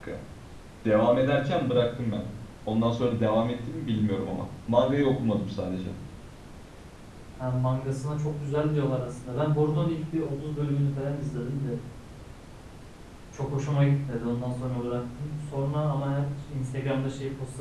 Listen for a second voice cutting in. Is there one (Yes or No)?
No